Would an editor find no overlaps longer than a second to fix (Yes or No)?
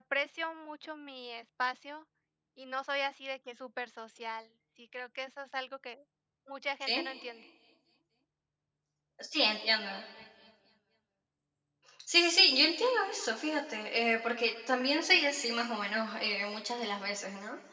Yes